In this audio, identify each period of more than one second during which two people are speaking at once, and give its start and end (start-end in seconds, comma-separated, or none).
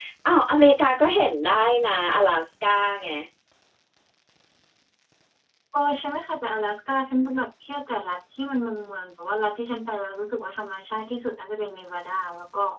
none